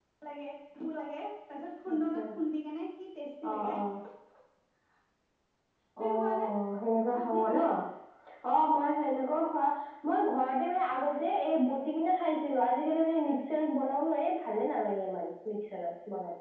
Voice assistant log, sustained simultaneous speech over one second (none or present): none